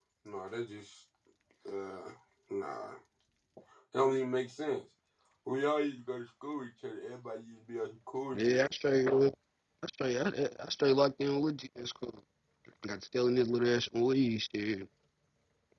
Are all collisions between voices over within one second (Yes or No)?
Yes